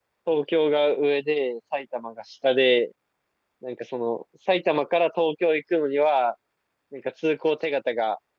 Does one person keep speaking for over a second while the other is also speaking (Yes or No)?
No